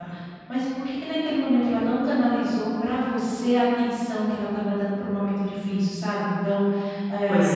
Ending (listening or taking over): listening